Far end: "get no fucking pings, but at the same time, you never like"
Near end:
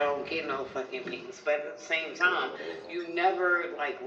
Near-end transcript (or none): Mhm.